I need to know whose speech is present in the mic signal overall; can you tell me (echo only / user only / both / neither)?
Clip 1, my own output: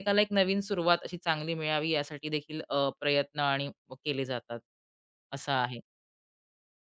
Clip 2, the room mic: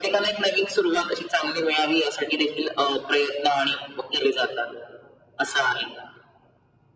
echo only